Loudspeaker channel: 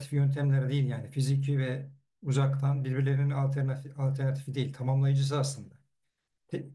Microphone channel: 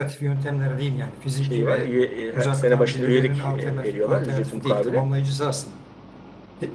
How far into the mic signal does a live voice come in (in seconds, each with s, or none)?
1.4 s